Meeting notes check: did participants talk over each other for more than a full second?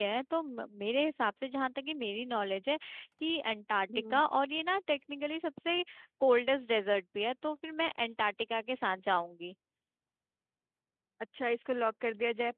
No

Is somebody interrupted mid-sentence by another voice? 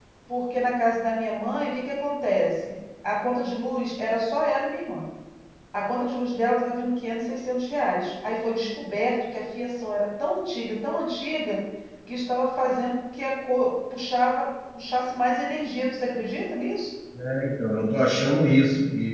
No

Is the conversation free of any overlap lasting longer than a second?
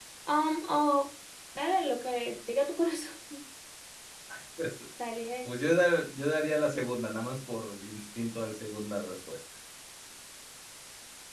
Yes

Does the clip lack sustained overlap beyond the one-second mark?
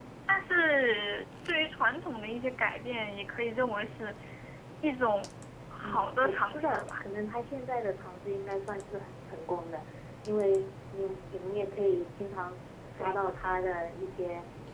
No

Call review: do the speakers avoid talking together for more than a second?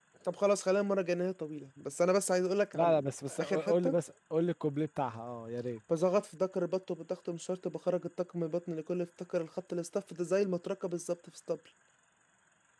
No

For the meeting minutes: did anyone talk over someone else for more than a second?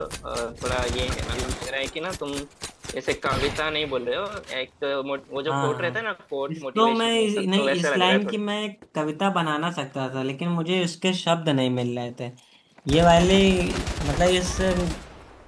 Yes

